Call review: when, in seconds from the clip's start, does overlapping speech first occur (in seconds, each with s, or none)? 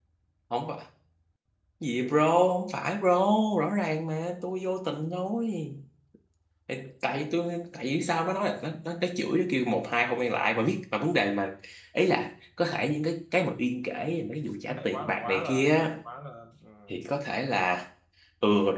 14.7 s